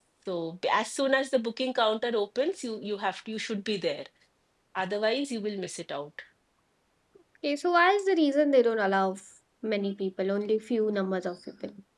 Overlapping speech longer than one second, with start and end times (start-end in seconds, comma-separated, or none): none